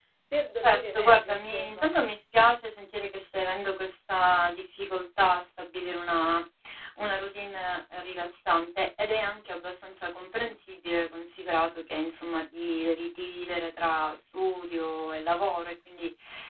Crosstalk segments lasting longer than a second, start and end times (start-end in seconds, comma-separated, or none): 0.6-1.9